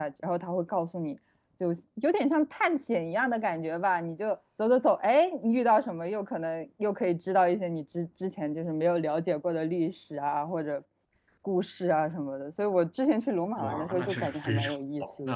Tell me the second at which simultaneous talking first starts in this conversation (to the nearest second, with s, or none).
14 s